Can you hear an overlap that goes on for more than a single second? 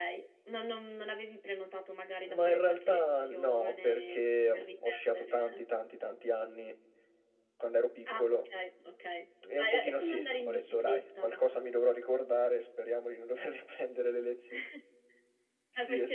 Yes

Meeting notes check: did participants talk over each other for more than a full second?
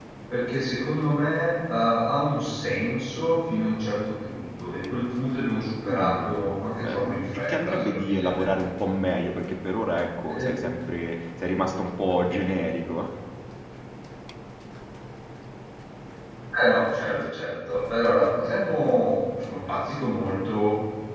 Yes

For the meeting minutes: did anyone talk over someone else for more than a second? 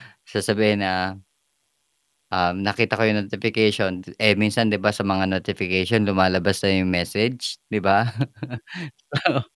No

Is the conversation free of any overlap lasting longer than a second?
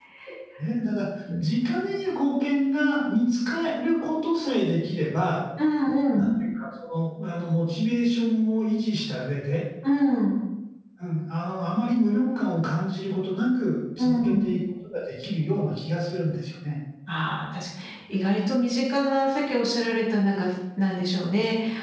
Yes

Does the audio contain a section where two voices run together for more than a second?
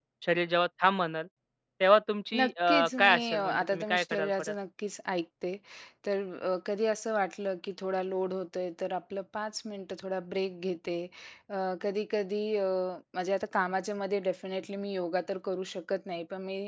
Yes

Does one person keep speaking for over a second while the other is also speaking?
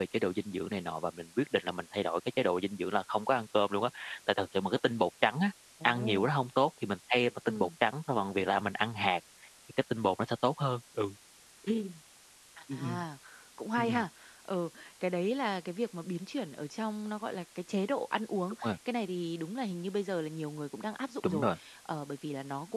No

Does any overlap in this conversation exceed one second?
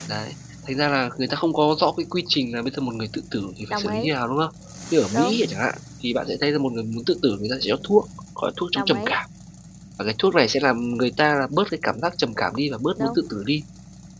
No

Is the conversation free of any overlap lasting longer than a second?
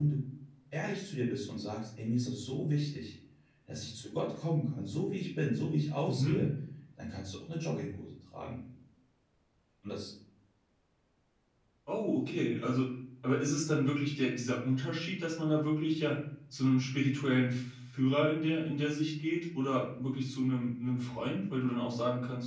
Yes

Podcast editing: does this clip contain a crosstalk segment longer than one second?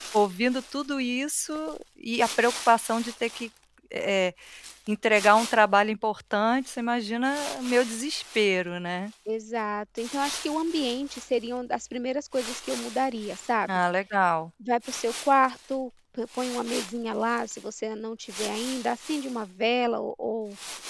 No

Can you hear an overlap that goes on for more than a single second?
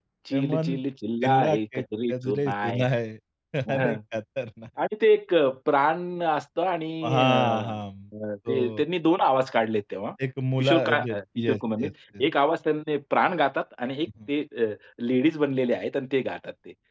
Yes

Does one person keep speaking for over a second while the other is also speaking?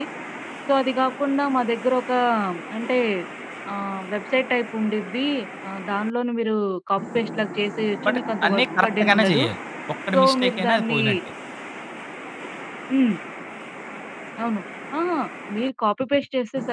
Yes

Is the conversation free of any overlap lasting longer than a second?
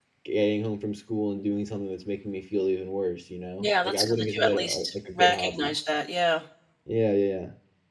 No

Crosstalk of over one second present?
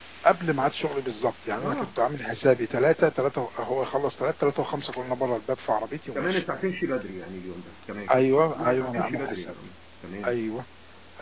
Yes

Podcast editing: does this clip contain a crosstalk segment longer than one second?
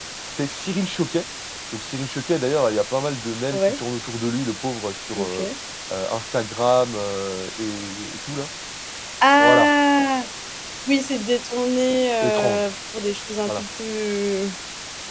No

